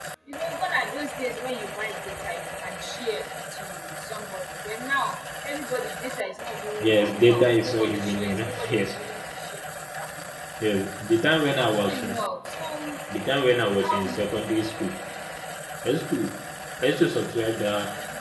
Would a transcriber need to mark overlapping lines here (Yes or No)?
Yes